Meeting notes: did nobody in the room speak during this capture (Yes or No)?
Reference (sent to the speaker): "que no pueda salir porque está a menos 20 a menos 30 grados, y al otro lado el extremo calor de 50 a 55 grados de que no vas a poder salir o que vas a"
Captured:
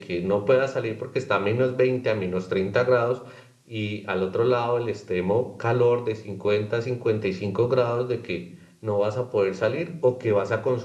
Yes